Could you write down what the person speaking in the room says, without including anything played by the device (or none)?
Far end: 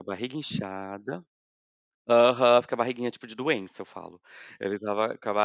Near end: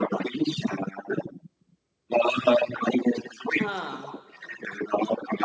ah